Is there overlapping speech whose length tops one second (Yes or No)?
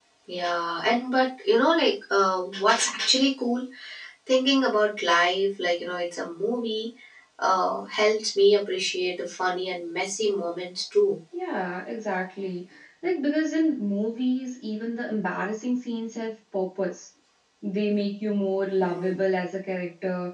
No